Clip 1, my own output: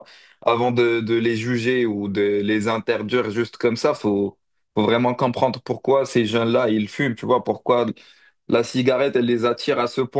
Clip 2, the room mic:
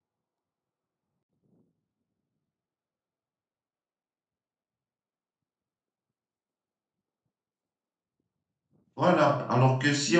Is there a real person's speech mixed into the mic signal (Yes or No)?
Yes